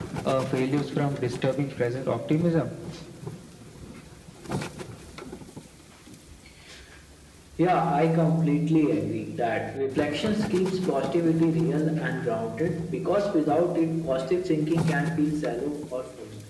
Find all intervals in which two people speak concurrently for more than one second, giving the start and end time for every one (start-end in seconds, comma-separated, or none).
none